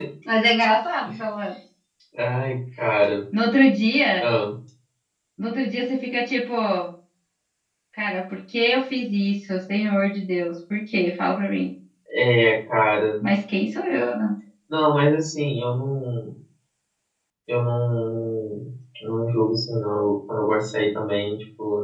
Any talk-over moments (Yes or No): No